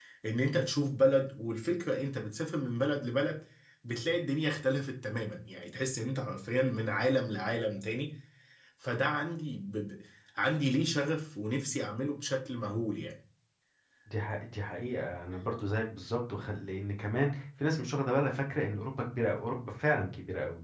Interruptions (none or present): none